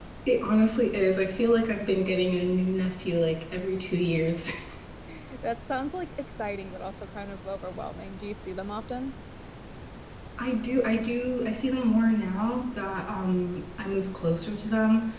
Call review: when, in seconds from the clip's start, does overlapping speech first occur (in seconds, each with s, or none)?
none